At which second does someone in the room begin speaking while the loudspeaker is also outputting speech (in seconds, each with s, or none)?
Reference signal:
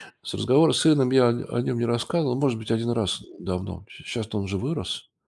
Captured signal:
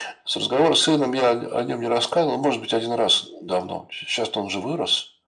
none